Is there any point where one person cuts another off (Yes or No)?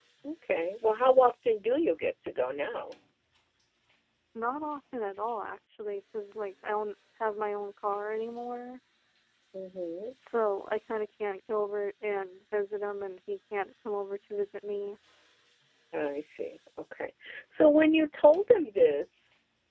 No